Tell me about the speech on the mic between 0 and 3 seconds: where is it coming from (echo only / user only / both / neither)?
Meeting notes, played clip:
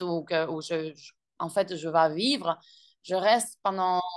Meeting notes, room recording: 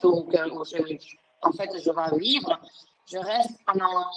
echo only